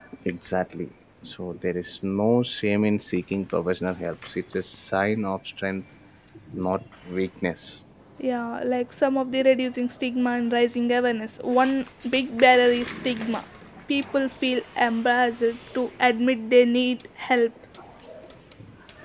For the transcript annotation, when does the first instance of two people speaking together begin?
none

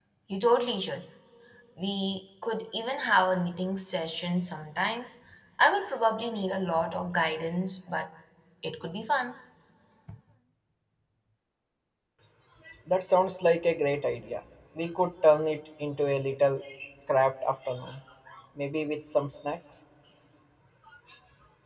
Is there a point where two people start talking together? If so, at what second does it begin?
none

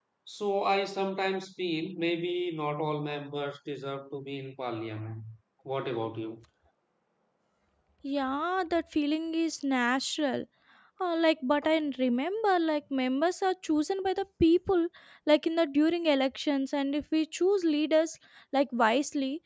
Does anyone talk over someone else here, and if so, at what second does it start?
none

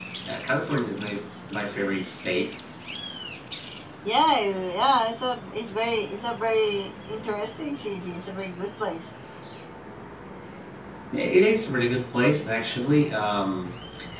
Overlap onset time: none

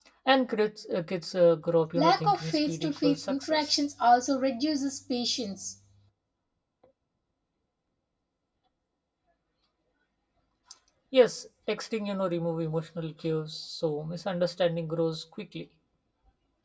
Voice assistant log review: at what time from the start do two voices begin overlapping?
1.9 s

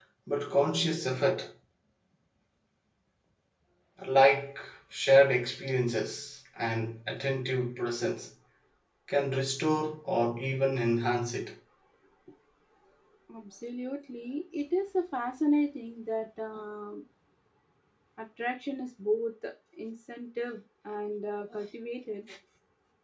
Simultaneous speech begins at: none

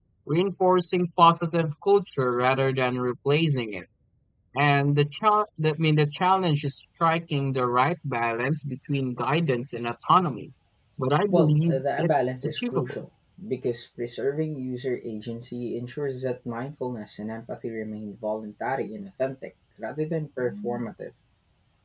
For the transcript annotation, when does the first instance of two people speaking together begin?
11.3 s

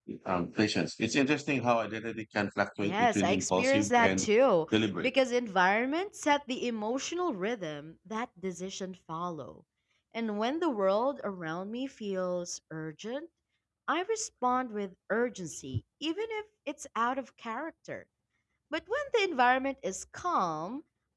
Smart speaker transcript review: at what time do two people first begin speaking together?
2.8 s

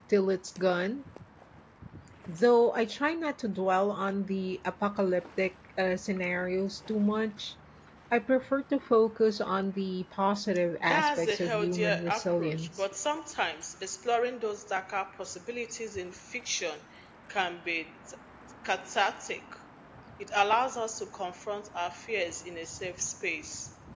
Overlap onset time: 10.8 s

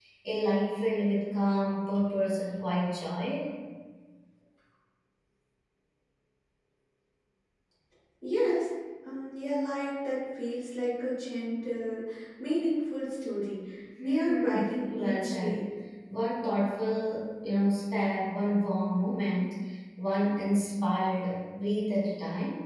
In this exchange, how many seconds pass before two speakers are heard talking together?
14.0 s

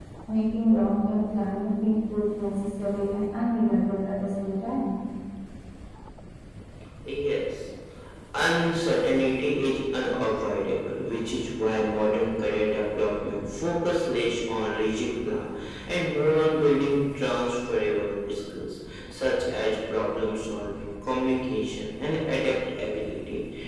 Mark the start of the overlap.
none

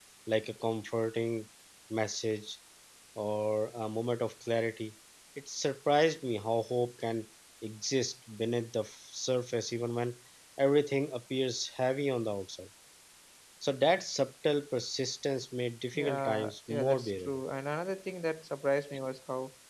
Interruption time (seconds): 15.9 s

